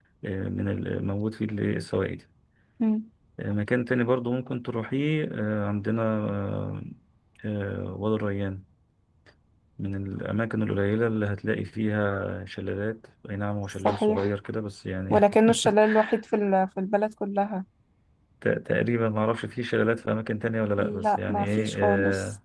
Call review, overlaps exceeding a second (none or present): present